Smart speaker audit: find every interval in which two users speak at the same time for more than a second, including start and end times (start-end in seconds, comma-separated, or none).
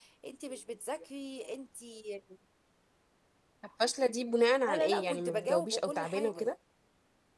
4.7-6.5